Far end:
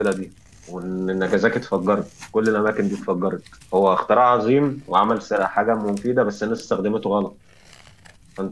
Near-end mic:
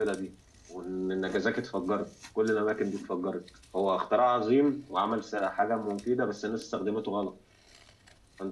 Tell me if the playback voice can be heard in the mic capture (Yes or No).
Yes